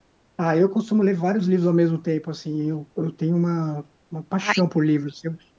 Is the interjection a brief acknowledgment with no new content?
Yes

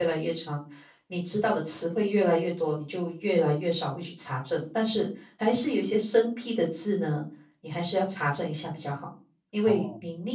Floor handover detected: No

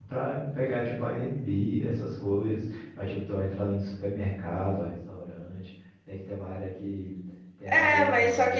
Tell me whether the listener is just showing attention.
No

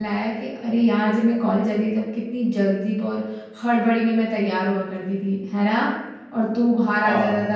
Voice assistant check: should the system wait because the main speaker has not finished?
Yes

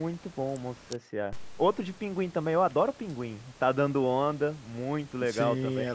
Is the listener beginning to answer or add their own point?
Yes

